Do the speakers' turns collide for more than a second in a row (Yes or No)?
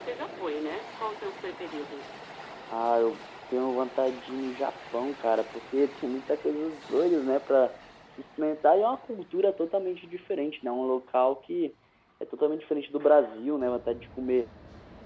No